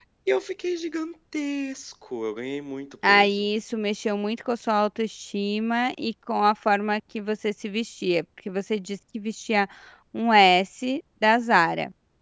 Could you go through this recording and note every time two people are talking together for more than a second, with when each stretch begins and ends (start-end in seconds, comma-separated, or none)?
none